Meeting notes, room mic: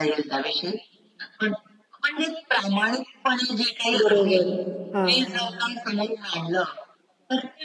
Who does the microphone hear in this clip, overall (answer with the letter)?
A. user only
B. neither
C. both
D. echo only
C